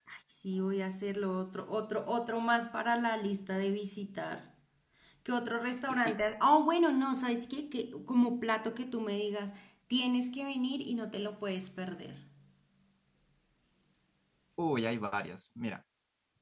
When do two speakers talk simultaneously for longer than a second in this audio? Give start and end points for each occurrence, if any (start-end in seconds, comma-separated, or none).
none